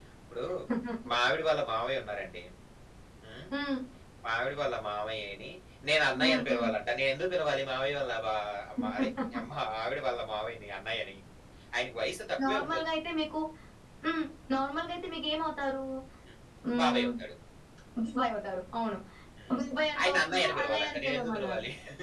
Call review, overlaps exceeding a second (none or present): present